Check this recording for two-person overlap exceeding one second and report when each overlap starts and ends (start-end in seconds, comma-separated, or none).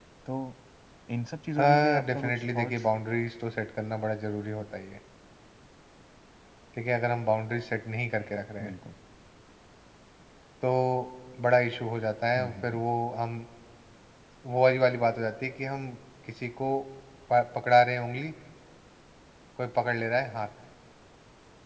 1.6-2.8